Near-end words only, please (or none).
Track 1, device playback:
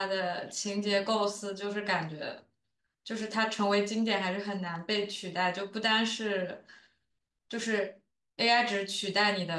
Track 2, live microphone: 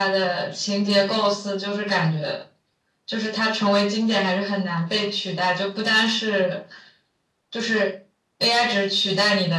none